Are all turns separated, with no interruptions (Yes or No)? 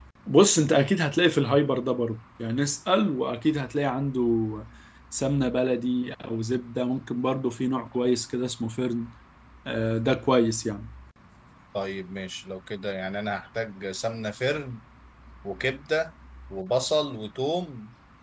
Yes